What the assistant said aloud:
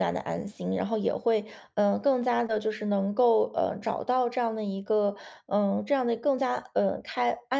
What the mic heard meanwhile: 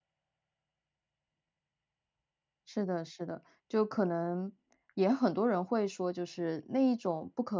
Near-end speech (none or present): present